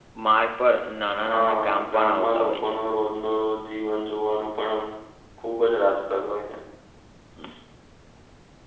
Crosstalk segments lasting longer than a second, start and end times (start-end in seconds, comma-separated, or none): 1.3-2.8